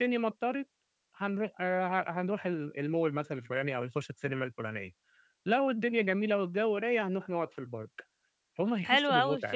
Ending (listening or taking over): taking over